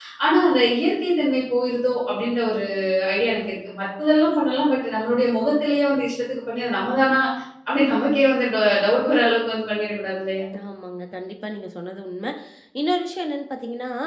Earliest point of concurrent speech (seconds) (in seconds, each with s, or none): none